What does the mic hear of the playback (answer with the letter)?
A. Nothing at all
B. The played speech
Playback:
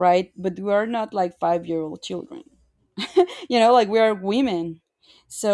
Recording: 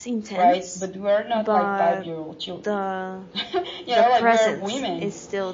B